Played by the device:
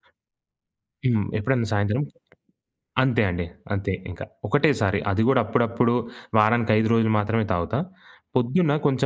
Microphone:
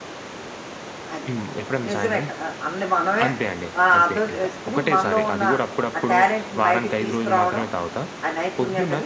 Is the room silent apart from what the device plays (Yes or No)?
No